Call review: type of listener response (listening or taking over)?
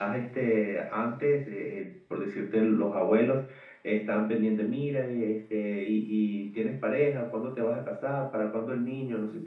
listening